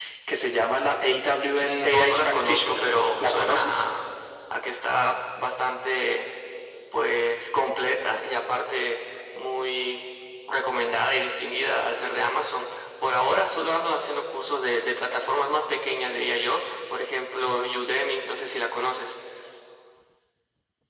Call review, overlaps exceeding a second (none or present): present